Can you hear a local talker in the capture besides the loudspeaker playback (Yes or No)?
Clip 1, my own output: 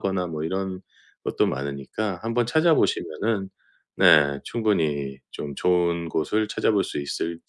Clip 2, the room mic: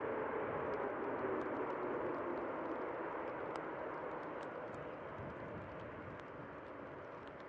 No